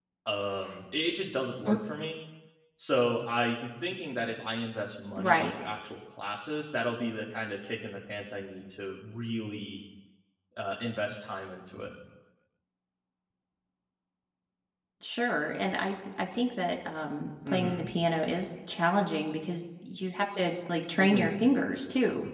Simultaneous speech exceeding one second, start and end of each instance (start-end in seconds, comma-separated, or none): none